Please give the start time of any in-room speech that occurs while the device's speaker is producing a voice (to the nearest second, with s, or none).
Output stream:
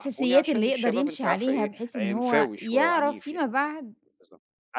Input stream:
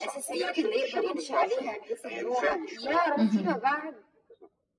3 s